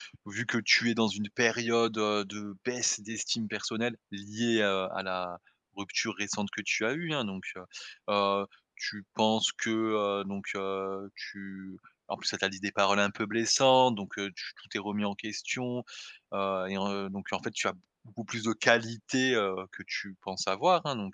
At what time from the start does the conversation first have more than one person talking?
none

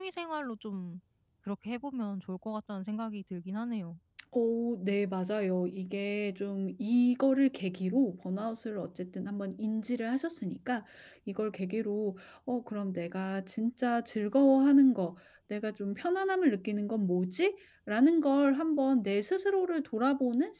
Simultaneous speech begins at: none

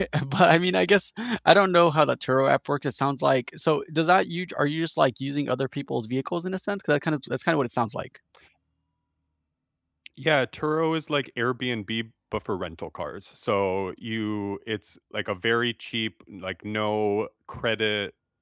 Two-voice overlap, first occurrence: none

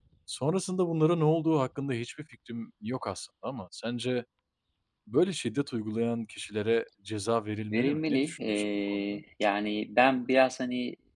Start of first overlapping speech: 7.7 s

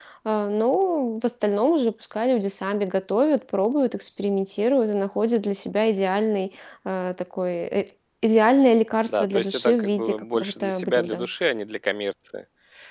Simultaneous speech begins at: 9.1 s

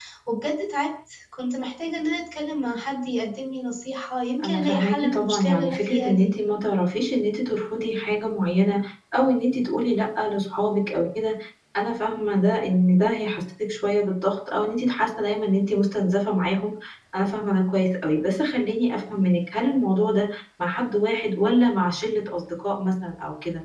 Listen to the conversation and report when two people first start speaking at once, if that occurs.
4.4 s

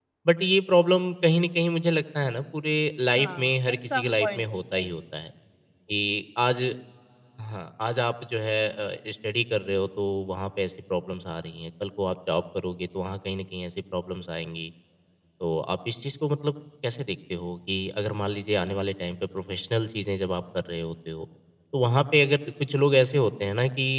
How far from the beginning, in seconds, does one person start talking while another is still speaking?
3.1 s

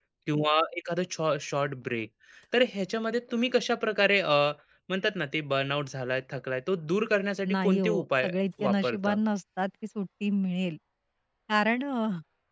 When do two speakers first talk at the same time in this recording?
7.5 s

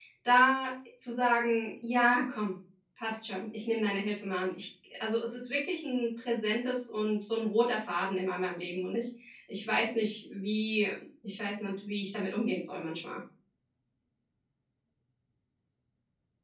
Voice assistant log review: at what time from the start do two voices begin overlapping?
none

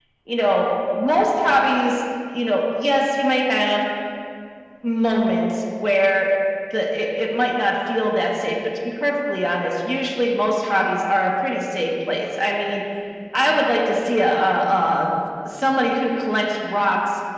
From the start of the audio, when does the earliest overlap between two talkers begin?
none

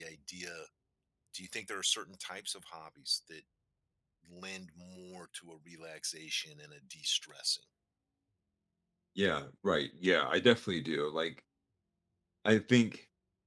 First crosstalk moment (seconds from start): none

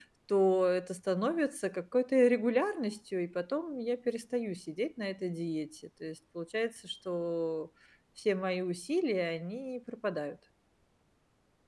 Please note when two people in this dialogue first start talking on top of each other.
none

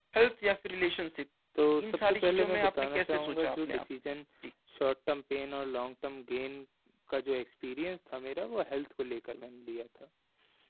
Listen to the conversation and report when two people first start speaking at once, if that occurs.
1.8 s

